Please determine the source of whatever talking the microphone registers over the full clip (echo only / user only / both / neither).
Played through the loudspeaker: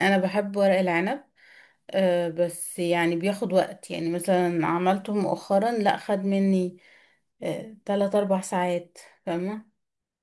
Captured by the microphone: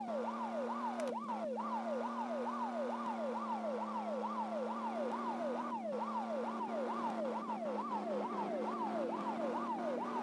neither